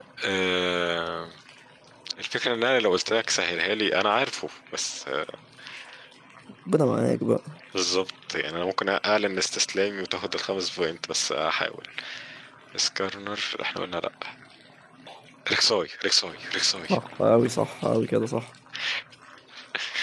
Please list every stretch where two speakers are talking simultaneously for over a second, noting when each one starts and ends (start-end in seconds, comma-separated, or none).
none